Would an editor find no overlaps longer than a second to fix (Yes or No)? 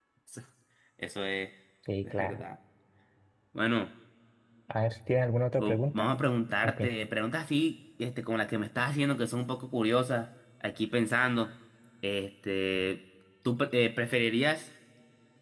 Yes